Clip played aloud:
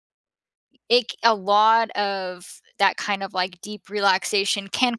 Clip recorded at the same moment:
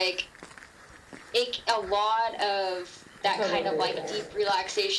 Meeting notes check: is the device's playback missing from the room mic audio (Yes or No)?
No